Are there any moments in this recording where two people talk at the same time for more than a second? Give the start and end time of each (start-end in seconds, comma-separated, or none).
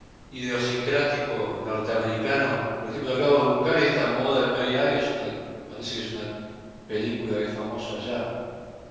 none